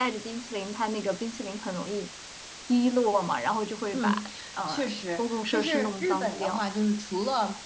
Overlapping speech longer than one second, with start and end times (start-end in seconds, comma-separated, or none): 4.7-6.6